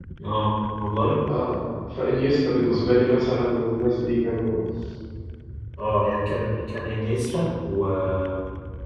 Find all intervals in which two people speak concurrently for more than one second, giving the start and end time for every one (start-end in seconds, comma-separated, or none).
none